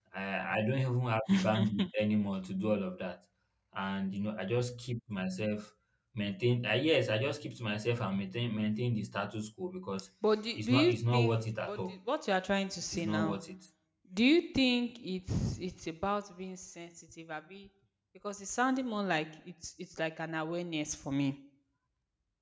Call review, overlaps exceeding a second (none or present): present